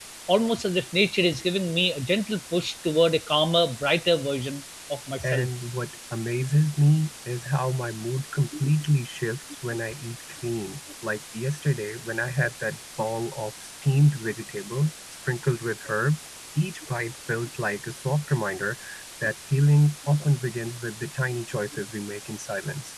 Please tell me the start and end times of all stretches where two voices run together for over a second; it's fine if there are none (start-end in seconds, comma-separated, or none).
none